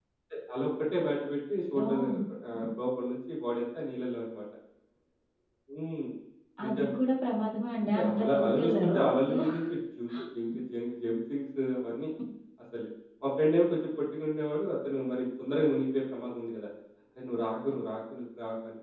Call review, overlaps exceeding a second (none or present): present